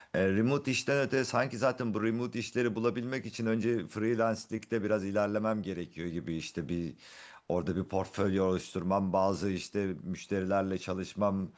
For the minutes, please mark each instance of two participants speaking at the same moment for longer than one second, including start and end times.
none

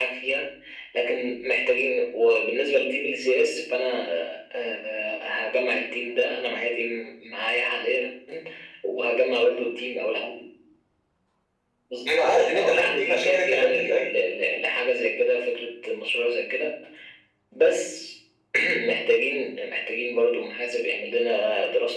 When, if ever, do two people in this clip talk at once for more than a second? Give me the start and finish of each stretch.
12.1-14.1

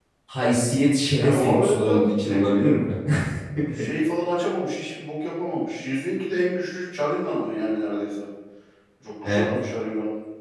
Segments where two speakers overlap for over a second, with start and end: 1.2-2.8

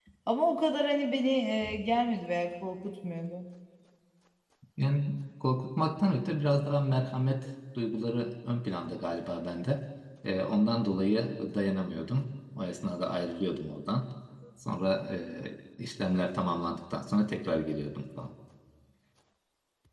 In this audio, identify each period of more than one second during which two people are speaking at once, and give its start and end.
none

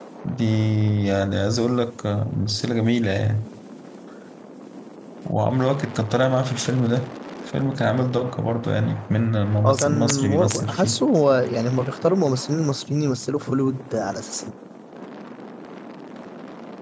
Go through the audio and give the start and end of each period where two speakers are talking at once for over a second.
9.6-11.0

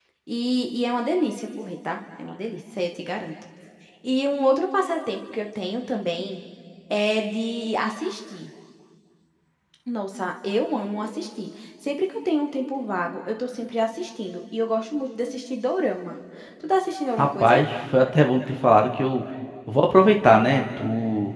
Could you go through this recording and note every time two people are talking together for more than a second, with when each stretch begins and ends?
none

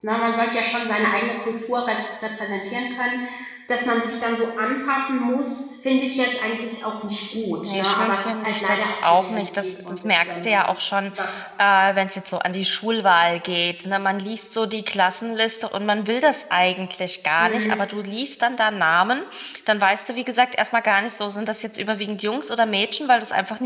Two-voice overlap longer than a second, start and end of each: 7.7-10.5

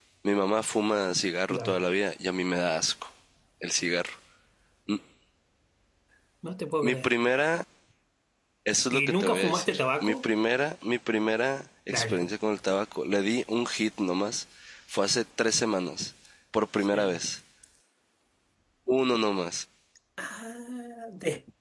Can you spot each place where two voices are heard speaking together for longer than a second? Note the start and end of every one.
8.9-10.2

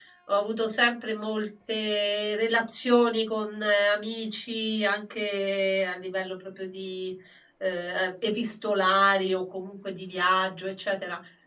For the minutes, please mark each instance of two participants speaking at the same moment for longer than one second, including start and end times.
none

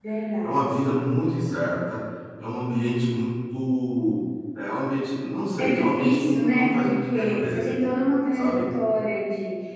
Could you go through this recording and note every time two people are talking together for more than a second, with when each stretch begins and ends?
5.6-7.7

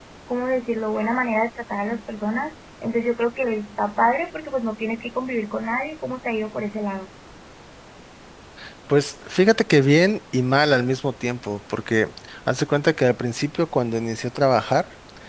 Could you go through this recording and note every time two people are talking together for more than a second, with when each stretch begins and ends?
none

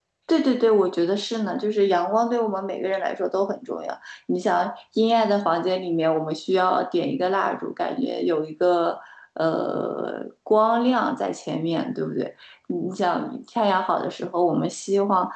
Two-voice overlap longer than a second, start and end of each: none

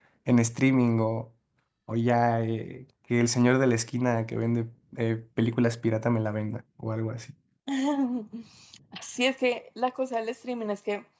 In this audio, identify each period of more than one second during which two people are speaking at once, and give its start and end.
none

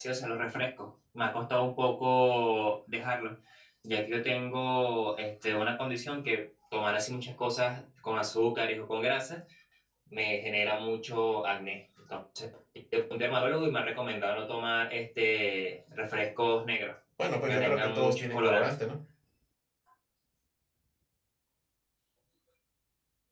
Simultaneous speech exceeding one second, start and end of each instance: 17.4-18.7

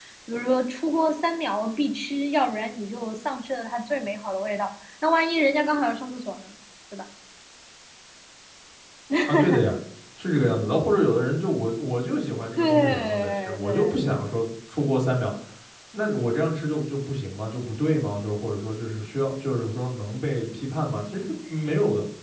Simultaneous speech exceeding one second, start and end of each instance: 12.6-14.0

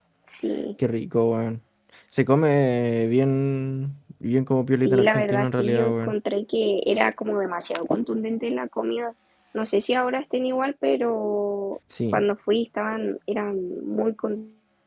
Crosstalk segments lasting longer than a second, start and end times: 4.8-6.1

